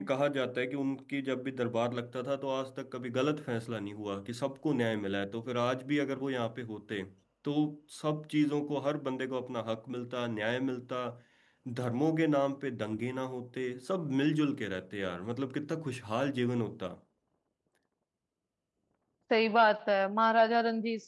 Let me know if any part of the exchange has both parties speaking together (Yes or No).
No